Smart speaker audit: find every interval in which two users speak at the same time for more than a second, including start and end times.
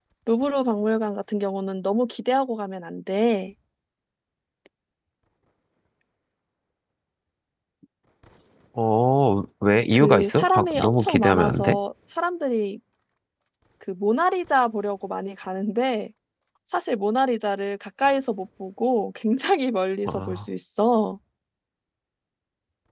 9.9-11.8

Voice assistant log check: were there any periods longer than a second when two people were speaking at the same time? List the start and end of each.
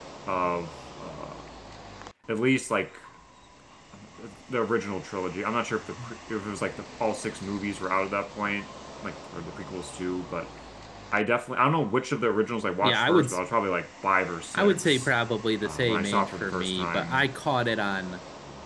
15.6-17.3

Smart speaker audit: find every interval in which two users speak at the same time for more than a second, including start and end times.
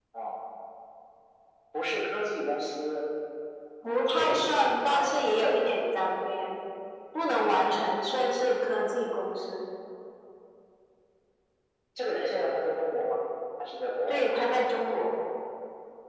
4.1-5.5

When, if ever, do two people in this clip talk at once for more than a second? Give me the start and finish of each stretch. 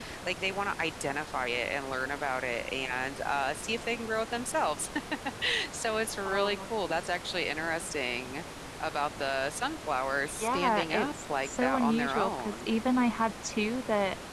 10.3-12.7

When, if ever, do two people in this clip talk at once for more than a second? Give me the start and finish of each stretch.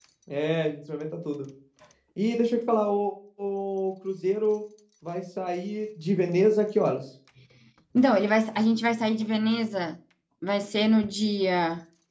none

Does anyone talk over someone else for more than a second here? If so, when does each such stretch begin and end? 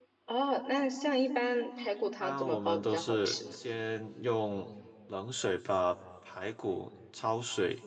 2.2-3.6

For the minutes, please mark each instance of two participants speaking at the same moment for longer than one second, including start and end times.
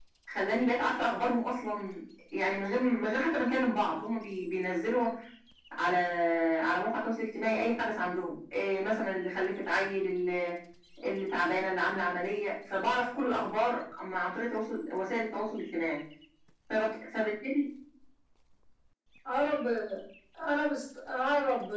none

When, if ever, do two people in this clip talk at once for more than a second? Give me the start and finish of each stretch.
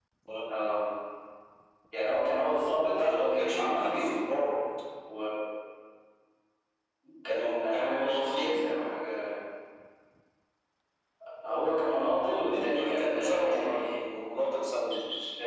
2.9-4.1, 7.3-8.8, 12.2-14.0

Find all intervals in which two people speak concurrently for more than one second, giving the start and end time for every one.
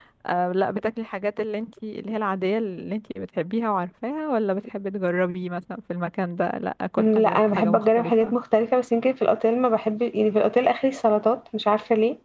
7.0-8.3

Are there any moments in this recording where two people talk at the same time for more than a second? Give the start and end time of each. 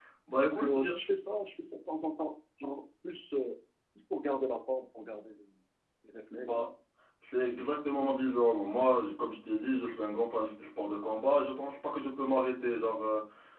none

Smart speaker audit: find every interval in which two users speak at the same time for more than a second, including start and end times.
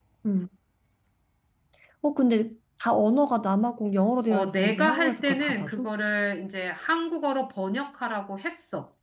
4.3-5.9

